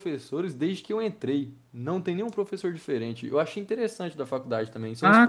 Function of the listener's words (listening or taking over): taking over